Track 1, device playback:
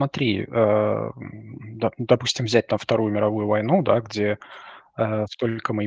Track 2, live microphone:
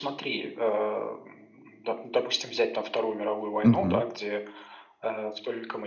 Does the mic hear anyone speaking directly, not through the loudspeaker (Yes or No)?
Yes